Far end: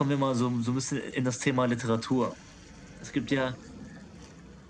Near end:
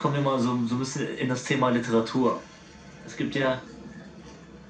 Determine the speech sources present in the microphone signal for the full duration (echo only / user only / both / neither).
echo only